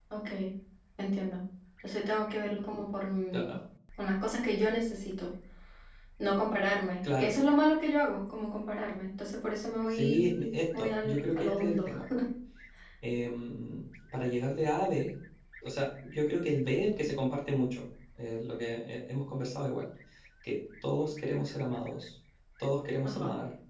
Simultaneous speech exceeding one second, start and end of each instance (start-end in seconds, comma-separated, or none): 9.9-11.9